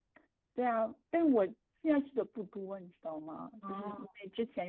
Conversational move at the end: listening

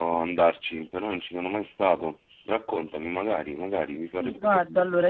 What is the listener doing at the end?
taking over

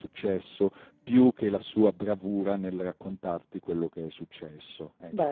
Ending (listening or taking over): taking over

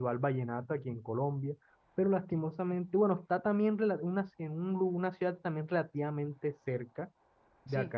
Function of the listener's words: listening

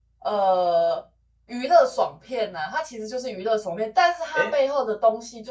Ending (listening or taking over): listening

